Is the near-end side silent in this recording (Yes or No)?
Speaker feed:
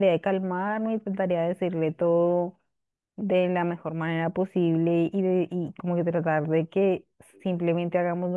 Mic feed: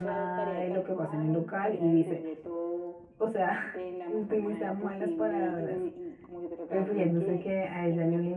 No